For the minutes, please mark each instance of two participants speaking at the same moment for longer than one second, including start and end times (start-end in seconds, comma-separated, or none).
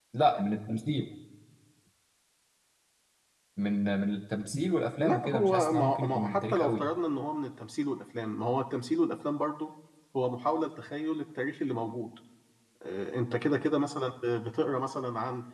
5.0-6.8